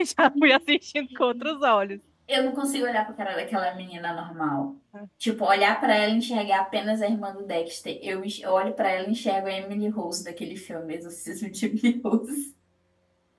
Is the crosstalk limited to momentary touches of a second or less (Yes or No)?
Yes